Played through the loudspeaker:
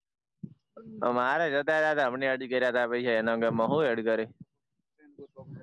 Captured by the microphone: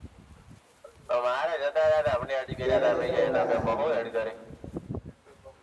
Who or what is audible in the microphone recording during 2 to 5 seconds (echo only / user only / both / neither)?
both